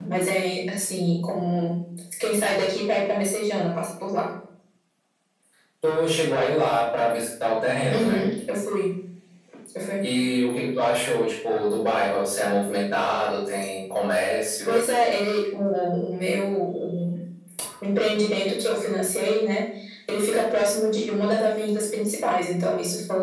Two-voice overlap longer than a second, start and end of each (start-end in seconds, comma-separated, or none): none